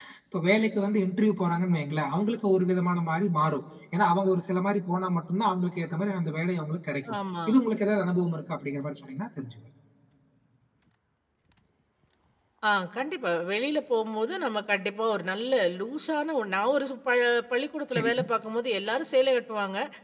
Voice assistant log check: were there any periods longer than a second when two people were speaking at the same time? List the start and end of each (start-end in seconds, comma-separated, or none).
none